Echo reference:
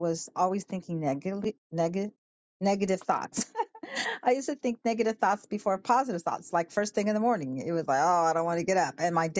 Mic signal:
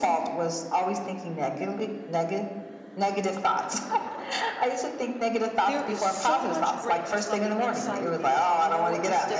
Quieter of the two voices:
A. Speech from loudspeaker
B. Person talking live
B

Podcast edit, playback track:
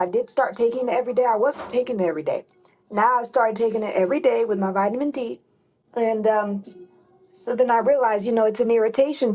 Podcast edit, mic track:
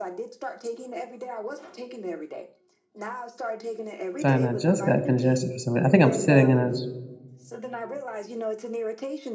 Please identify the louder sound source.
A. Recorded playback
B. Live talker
B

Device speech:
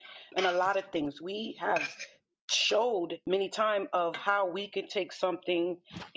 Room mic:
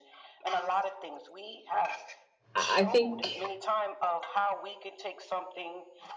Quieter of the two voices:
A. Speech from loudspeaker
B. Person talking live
A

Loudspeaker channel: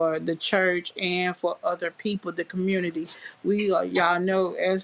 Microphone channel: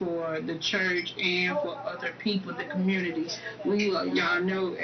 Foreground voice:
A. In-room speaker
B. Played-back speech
B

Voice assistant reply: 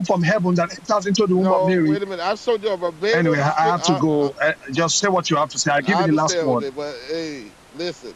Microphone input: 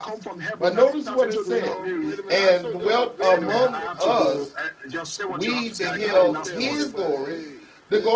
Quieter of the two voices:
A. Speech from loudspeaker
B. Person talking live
A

